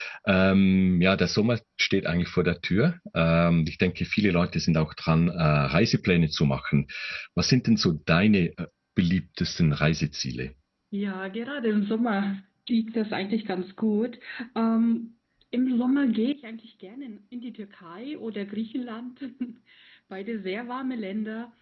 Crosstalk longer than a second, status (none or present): none